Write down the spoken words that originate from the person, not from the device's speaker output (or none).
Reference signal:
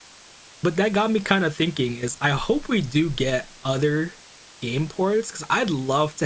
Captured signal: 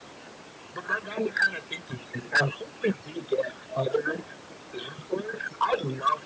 none